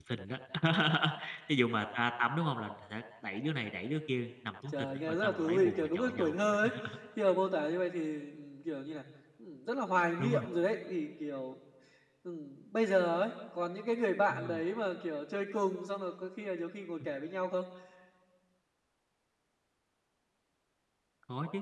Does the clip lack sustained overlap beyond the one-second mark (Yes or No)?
No